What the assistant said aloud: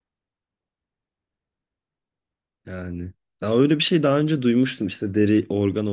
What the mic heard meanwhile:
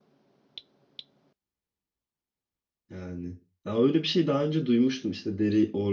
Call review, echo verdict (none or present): present